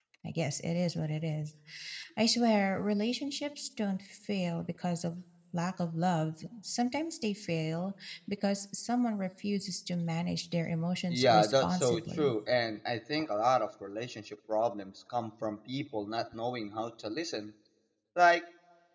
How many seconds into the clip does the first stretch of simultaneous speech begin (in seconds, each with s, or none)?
11.1 s